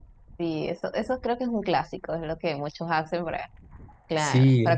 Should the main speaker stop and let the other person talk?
No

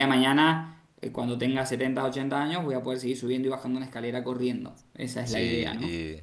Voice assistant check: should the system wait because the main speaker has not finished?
No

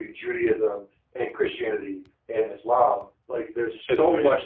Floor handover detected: No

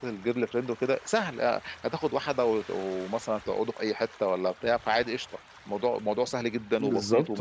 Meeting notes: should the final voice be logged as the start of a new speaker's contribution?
Yes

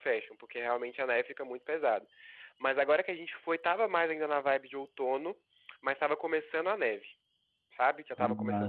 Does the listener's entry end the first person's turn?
No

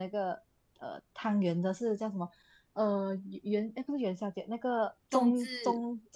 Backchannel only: Yes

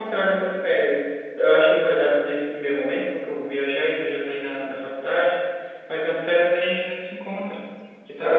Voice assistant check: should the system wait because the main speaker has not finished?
No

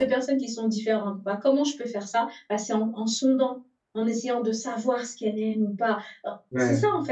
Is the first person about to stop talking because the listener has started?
No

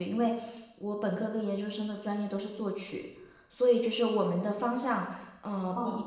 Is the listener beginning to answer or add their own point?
No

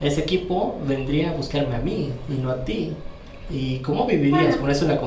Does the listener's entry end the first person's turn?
No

